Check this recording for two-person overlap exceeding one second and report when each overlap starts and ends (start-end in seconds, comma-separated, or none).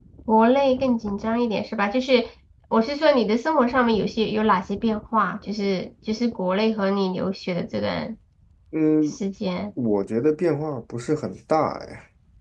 none